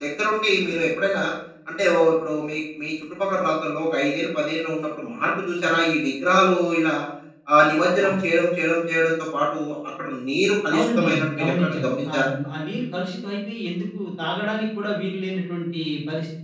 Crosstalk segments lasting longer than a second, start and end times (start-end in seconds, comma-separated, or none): 10.7-12.3